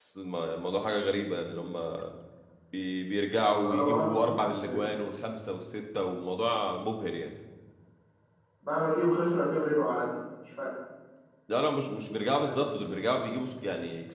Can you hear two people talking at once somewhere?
Yes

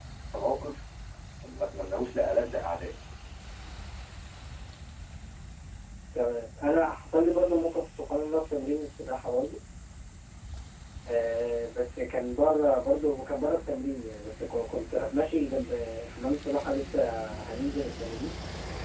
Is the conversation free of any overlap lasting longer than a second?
Yes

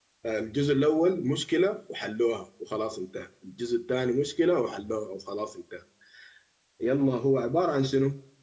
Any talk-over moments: No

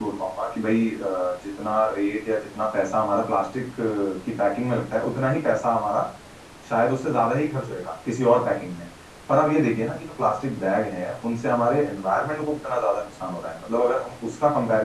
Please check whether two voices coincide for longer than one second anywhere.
No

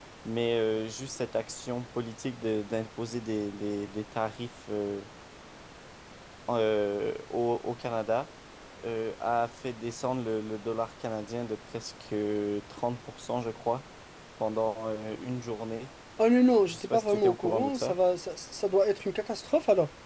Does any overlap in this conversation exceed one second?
Yes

